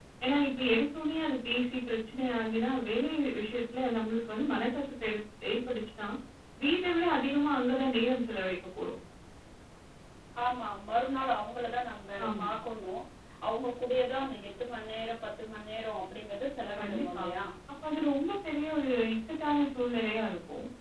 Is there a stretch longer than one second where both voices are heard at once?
No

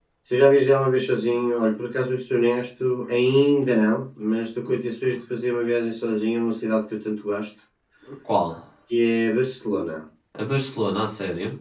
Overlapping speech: No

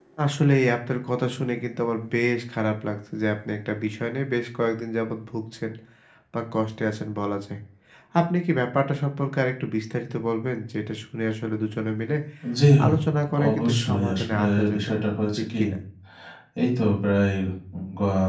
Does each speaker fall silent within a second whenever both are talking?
No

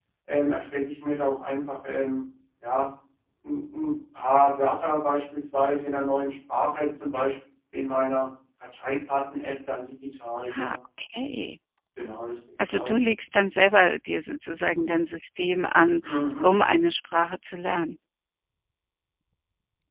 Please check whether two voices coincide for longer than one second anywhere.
No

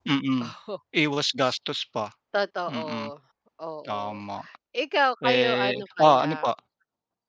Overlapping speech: Yes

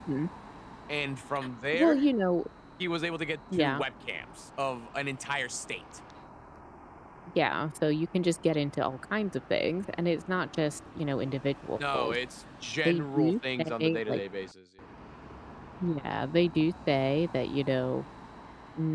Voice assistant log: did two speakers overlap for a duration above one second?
Yes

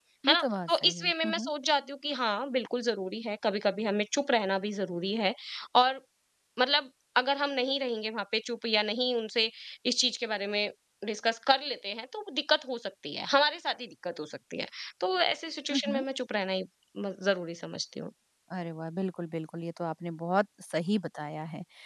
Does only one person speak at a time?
No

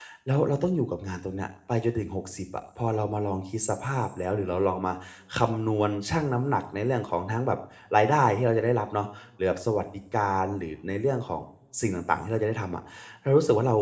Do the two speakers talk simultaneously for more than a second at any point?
No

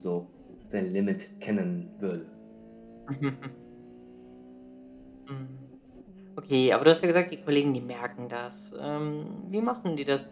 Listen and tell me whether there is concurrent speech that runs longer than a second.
No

